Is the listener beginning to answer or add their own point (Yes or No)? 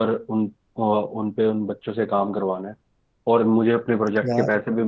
No